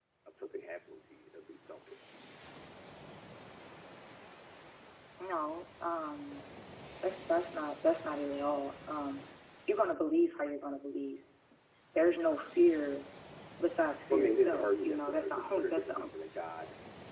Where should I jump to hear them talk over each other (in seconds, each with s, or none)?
14.1 s